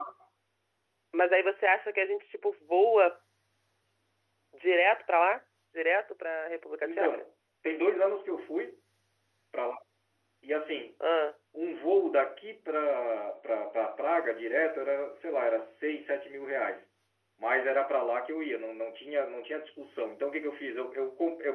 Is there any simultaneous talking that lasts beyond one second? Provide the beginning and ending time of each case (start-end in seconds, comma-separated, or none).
none